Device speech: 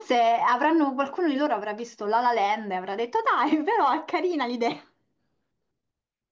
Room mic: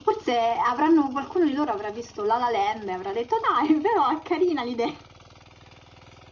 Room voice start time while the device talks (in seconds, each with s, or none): none